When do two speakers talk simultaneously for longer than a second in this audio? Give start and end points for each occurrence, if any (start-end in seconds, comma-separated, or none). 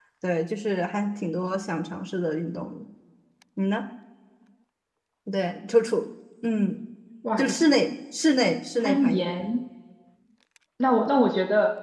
none